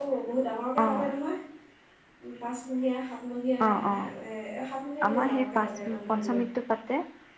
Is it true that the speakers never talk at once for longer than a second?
No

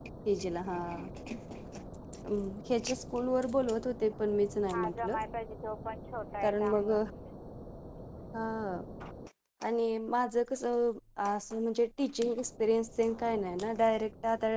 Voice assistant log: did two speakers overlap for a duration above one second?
No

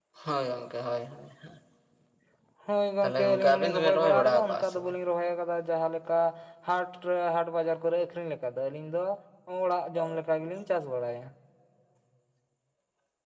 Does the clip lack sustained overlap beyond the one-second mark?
No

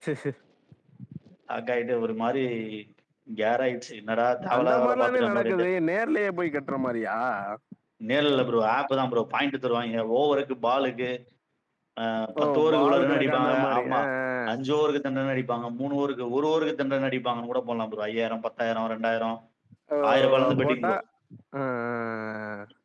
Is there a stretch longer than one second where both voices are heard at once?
Yes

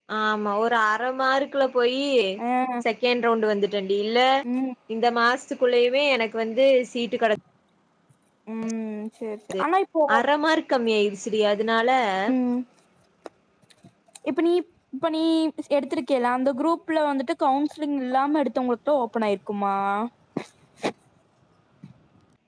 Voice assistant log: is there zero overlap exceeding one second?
Yes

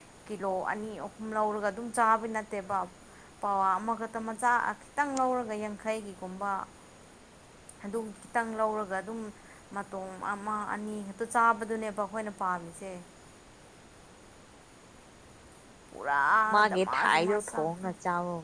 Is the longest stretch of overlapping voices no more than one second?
No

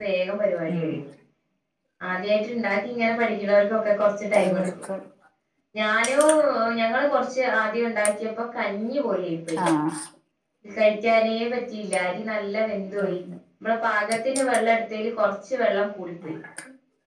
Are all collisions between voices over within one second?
Yes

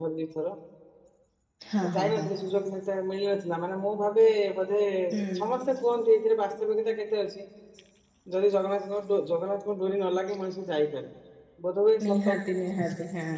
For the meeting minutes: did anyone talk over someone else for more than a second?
No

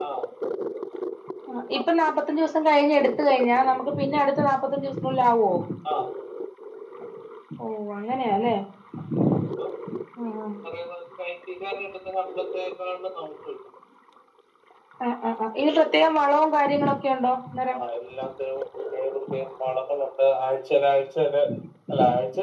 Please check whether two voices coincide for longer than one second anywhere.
No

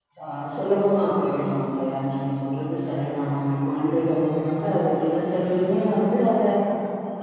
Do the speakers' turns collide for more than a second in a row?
No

